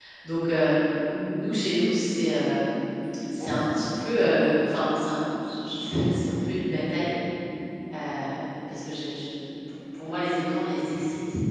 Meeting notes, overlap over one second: present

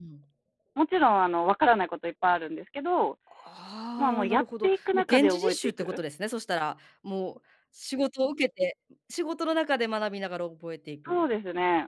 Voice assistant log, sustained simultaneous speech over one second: present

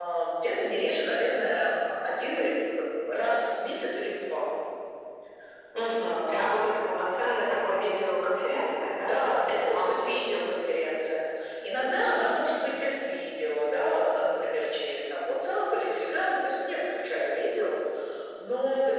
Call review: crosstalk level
present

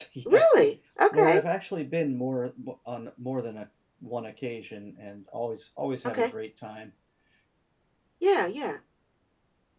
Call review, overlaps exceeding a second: none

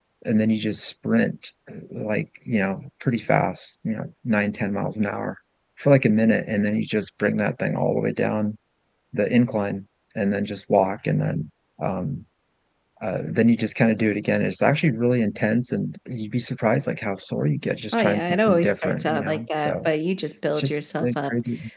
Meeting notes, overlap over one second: present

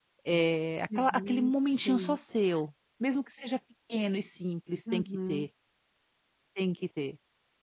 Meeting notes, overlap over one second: present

